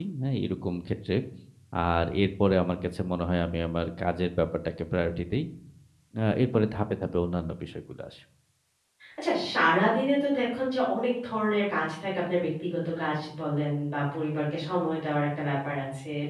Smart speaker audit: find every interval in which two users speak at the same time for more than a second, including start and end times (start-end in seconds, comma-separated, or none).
none